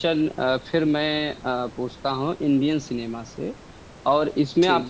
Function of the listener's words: listening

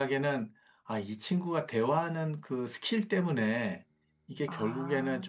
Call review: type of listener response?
listening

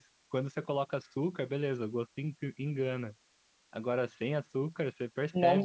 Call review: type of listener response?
listening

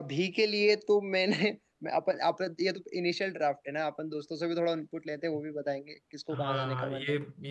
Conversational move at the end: taking over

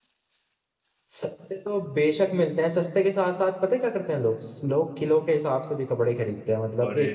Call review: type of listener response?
listening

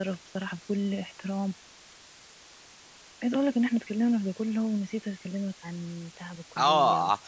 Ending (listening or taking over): taking over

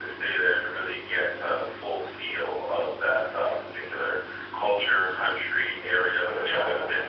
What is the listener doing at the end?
listening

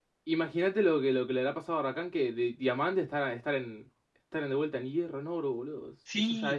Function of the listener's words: taking over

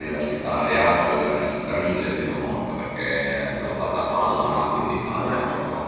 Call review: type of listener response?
listening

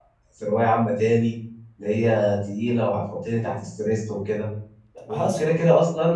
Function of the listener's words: listening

